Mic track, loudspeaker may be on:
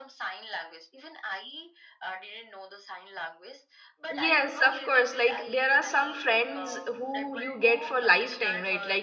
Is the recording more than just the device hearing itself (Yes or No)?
Yes